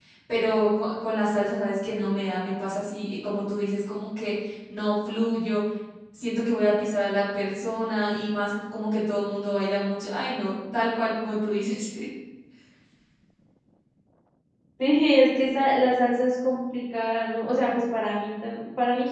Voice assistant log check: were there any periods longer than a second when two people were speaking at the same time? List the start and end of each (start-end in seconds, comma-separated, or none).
none